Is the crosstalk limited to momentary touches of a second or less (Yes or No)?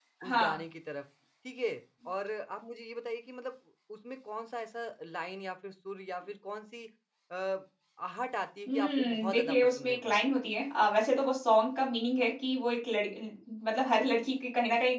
No